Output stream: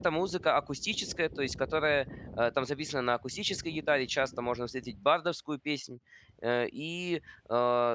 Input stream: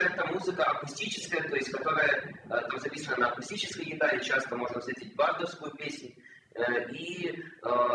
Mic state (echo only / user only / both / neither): echo only